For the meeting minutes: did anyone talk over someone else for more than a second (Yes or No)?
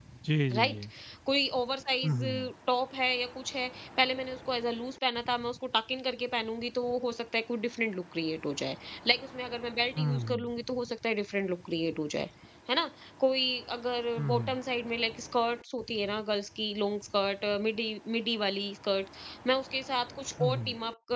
No